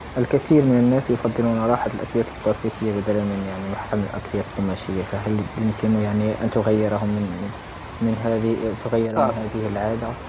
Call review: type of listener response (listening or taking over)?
listening